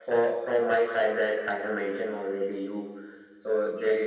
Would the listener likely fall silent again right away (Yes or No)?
No